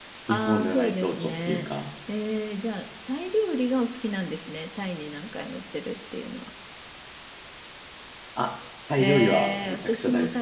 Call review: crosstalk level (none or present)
present